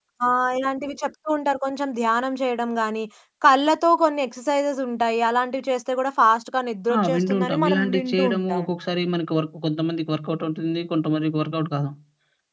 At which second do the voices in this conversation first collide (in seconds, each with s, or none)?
7.1 s